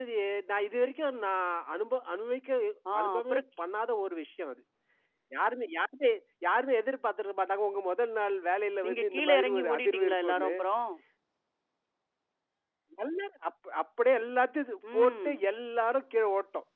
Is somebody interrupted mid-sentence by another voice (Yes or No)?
Yes